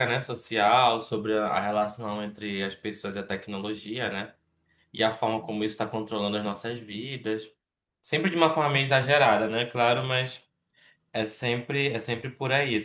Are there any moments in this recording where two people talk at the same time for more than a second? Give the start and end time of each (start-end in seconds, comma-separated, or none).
none